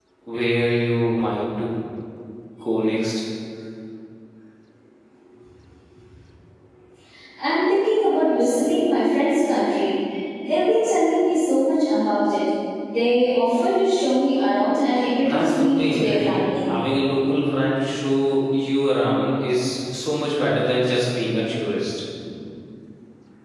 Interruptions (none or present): present